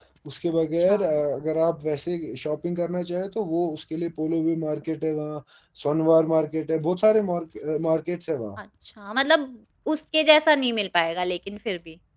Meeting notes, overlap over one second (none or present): none